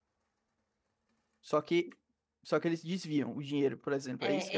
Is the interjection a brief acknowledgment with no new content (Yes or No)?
No